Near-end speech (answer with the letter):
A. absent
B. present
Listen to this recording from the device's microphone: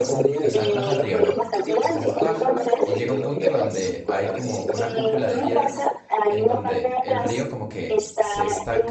B